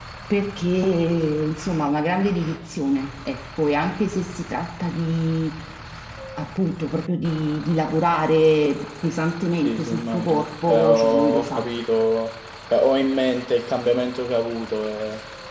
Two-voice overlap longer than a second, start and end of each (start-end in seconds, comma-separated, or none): 9.6-11.7